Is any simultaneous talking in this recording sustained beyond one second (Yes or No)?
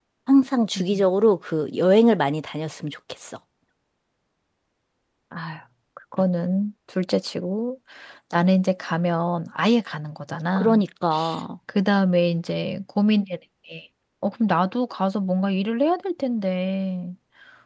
No